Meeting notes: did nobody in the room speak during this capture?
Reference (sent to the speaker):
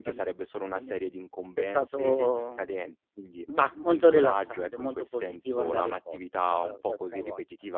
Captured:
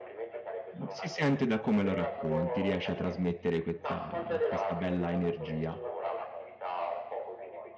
No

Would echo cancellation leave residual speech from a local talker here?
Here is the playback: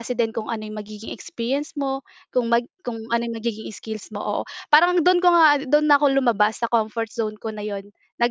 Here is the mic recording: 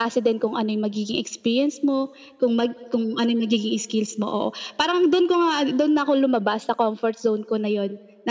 No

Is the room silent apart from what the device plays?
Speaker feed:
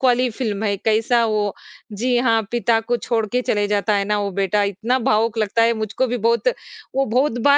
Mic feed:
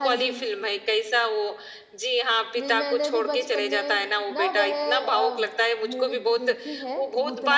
No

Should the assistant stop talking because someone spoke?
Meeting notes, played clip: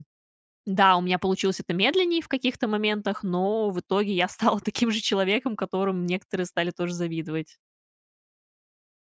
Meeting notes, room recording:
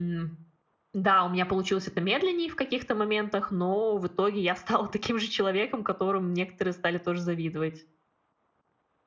No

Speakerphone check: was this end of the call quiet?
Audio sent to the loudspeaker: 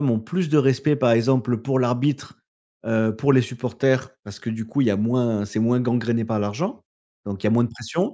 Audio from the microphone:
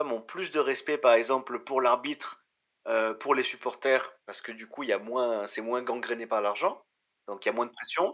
Yes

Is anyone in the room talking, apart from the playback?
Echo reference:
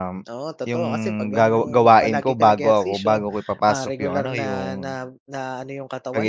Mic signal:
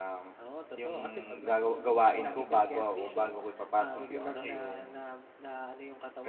No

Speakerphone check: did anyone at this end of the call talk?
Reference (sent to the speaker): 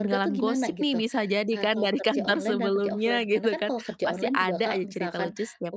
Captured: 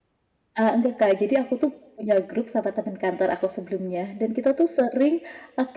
Yes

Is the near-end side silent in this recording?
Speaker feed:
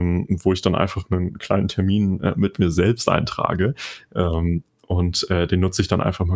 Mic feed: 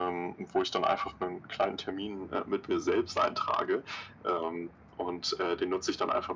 Yes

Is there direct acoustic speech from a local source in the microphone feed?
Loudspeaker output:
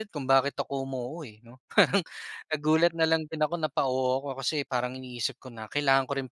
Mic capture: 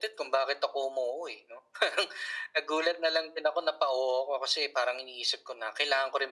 No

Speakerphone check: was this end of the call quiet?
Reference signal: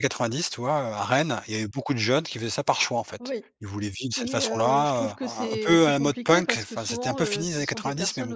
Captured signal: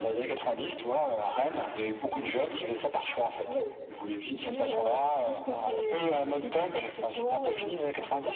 Yes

